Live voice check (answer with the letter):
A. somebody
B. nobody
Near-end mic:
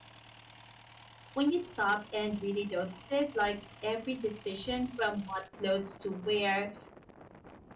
A